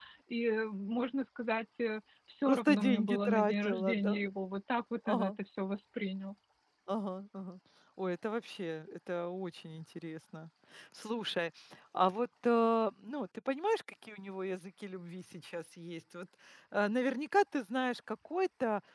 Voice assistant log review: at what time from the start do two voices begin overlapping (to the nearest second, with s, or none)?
2 s